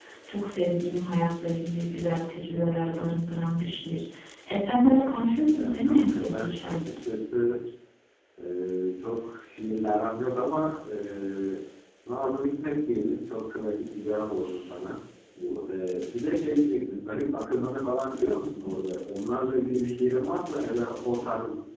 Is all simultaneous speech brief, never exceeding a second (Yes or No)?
No